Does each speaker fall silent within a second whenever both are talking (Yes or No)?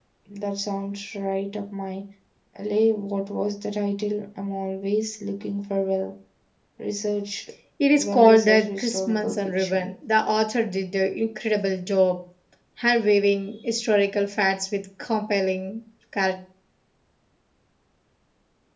No